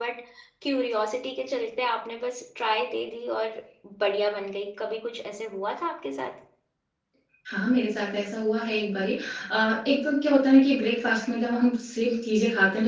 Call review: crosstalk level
none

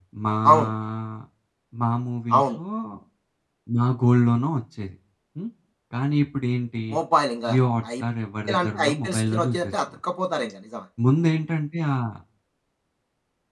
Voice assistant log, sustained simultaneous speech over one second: present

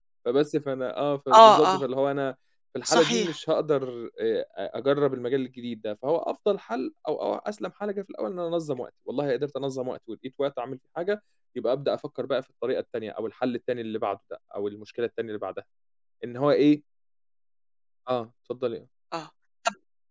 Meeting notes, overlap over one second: none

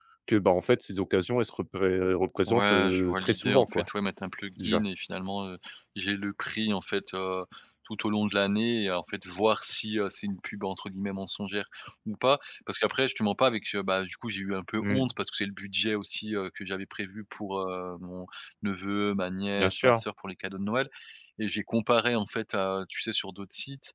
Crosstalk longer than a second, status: present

